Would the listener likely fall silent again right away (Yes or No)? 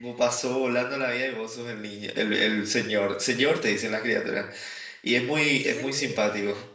Yes